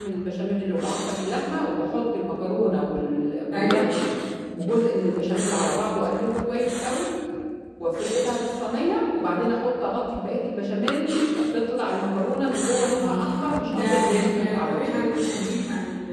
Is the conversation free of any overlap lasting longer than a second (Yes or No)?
No